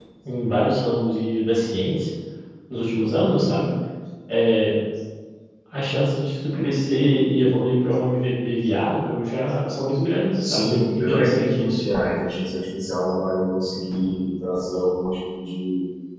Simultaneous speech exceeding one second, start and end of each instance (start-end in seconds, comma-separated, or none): 10.4-11.8